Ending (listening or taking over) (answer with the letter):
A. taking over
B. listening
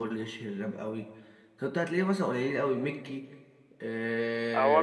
A